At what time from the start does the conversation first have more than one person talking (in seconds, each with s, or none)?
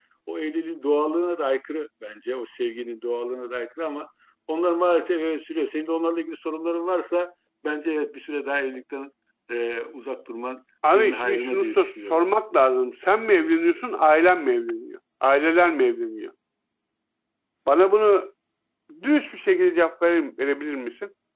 10.8 s